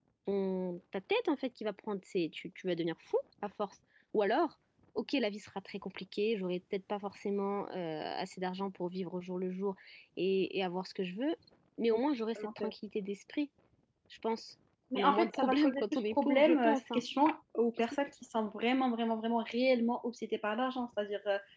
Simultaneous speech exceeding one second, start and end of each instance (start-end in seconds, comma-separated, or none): 14.9-17.0